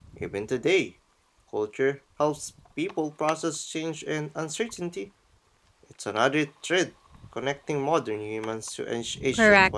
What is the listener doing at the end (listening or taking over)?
taking over